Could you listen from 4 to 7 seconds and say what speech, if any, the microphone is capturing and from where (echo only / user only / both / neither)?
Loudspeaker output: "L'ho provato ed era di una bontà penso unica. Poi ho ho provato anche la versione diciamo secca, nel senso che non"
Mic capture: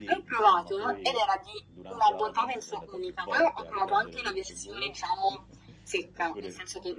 both